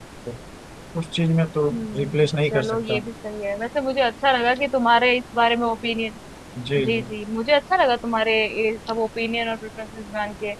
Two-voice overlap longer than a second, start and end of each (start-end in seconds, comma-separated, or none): 1.7-3.0